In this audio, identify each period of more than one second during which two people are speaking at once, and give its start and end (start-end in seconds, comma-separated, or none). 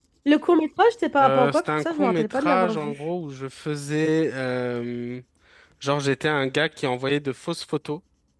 1.2-2.9